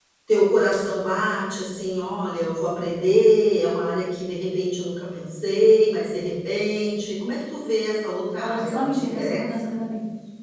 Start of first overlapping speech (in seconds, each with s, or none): 8.4 s